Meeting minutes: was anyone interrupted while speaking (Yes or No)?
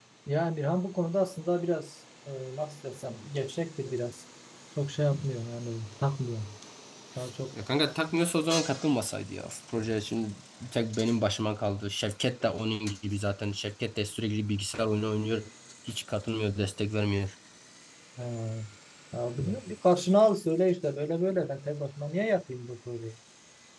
No